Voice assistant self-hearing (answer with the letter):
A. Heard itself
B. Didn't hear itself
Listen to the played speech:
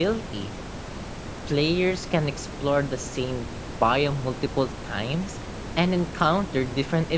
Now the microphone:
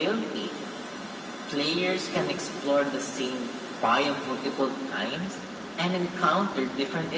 A